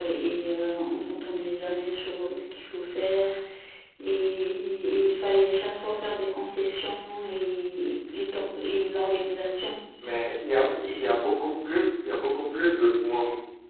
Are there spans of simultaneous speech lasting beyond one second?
No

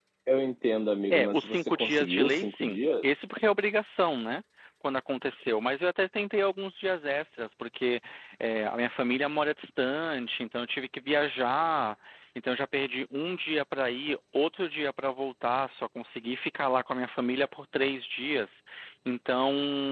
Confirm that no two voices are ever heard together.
No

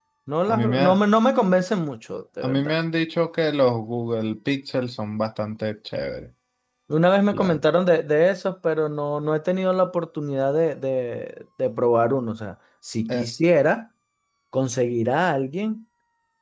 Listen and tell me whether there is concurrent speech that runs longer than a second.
No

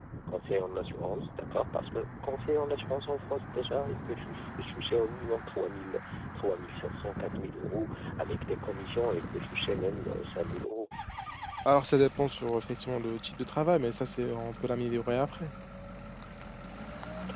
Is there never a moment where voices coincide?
Yes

